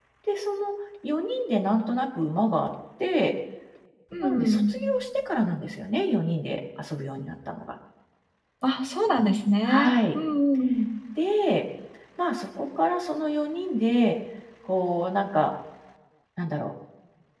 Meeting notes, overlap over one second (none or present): none